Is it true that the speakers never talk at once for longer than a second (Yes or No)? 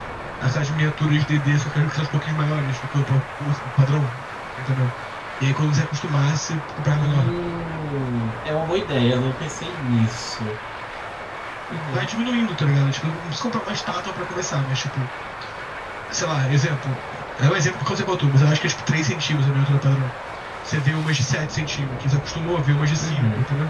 Yes